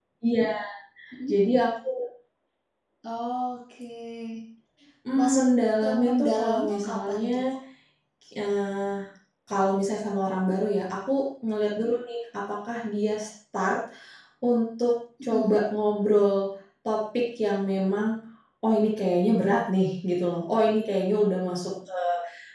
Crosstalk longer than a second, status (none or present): present